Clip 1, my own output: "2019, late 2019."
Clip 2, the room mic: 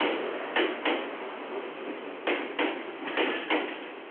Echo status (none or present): none